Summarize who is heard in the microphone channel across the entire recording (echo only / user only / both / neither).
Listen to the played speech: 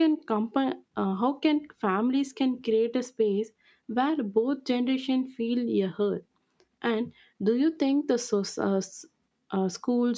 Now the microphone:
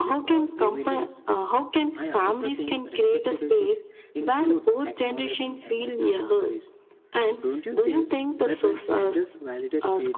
both